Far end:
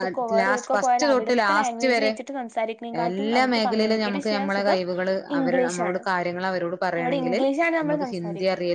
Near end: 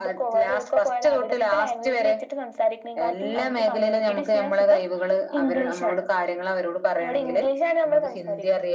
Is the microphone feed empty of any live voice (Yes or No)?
Yes